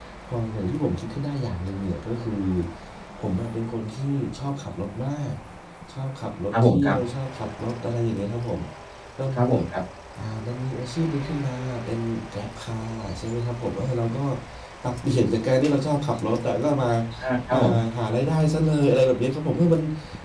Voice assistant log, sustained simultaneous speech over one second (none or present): none